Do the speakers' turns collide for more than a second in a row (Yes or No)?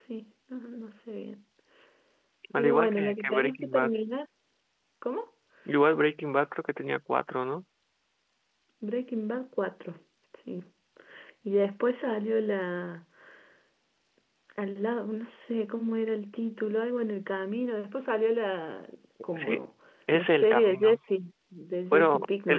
Yes